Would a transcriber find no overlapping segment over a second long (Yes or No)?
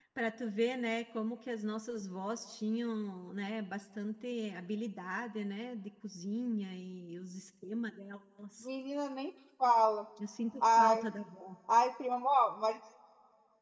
Yes